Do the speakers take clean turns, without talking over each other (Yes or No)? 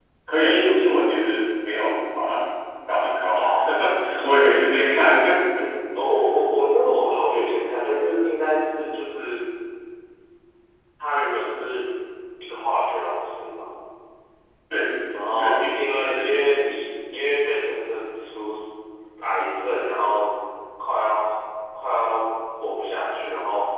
No